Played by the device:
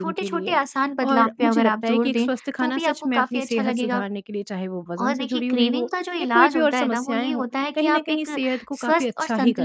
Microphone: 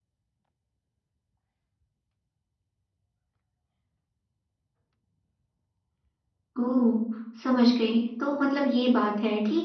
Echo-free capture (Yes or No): Yes